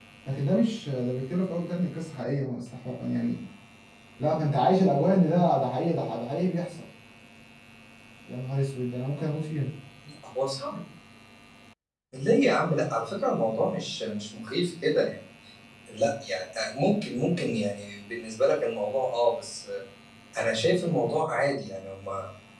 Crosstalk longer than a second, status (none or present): none